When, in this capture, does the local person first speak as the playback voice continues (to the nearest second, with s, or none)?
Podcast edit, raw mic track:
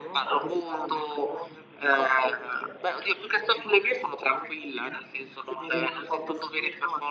none